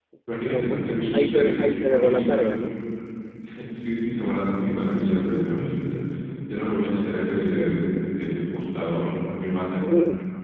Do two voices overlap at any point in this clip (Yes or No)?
Yes